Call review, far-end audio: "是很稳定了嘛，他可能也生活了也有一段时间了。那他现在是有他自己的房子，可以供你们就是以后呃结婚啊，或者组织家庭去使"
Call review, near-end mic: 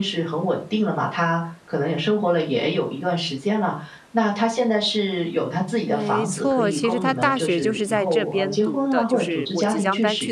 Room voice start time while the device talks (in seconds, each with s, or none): 5.8 s